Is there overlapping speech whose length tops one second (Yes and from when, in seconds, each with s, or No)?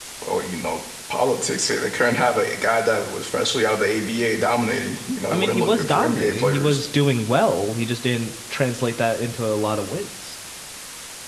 Yes, from 5.3 s